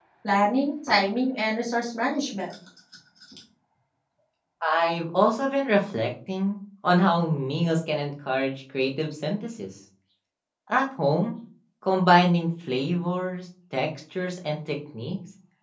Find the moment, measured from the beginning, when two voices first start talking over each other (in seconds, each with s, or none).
none